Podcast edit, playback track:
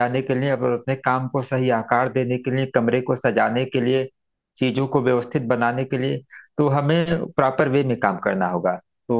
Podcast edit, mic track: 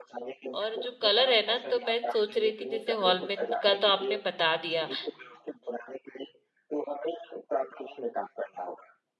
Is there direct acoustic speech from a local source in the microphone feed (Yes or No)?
Yes